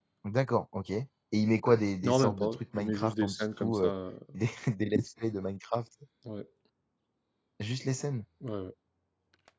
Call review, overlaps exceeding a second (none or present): present